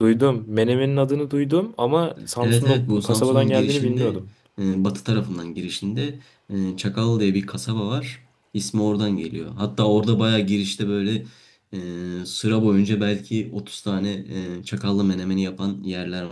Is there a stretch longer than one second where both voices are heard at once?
Yes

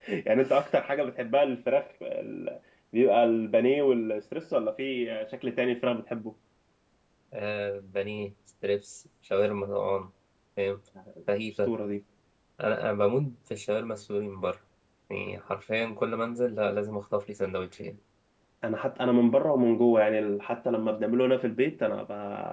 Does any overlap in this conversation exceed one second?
No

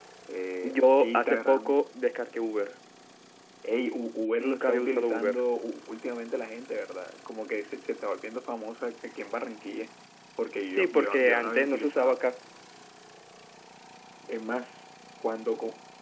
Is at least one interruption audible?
Yes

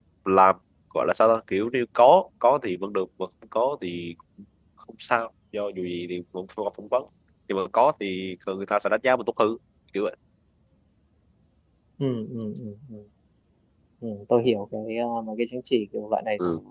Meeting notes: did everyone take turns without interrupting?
Yes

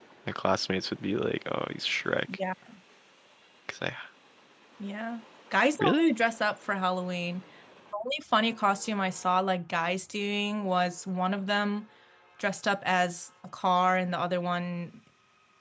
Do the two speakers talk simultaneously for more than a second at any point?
No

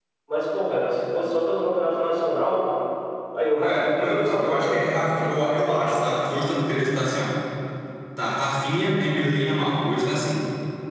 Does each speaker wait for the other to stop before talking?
No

